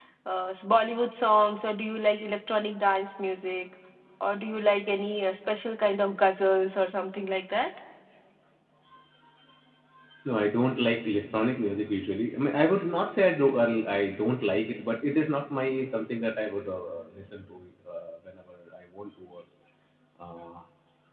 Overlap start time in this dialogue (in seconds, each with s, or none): none